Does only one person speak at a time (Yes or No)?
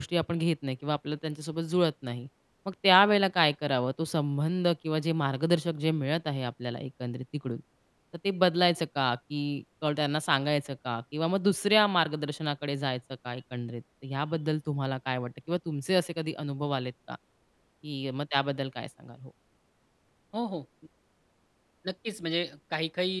Yes